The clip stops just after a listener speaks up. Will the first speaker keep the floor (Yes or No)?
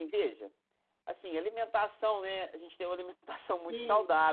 Yes